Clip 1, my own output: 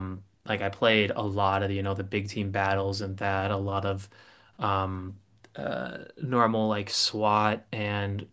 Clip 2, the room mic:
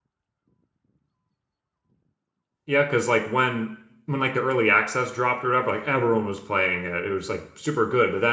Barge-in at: 2.6 s

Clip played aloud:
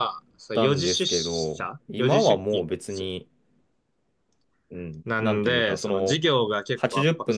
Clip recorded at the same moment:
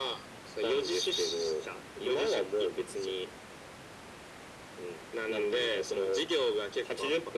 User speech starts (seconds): none

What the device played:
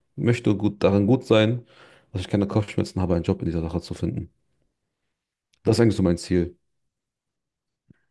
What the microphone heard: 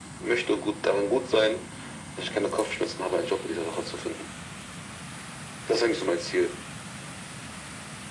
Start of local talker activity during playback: none

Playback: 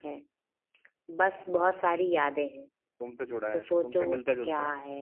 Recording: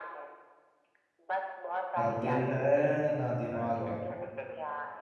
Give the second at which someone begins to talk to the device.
2.0 s

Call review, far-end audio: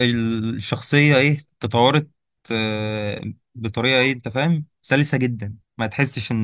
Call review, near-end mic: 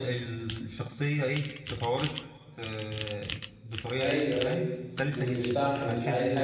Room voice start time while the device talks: 4.0 s

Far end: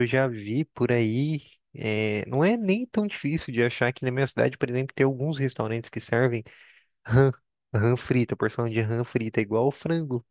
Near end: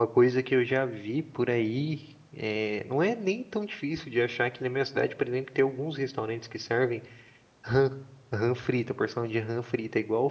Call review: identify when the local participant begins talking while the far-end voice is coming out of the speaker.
none

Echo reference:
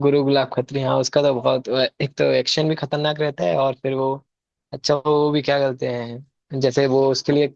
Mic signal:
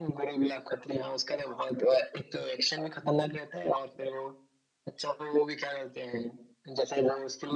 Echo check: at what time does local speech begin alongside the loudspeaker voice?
none

